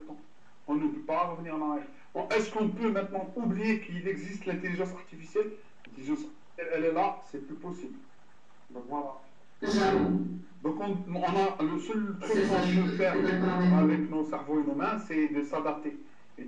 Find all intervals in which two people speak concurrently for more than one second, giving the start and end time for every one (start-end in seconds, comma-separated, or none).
12.2-13.9